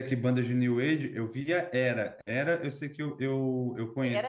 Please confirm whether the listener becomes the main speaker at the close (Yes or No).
Yes